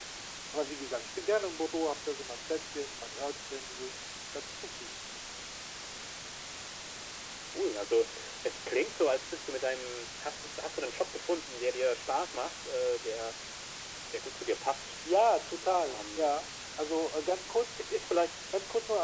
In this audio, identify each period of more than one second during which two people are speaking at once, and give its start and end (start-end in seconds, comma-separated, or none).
none